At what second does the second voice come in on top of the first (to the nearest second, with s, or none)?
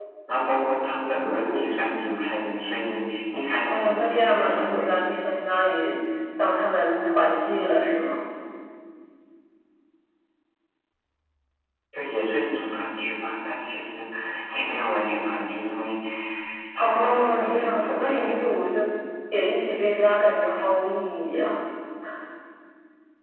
4 s